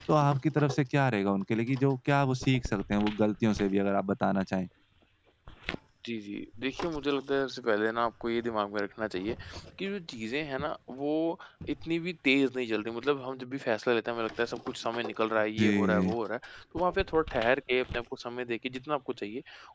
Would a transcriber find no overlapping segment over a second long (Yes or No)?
Yes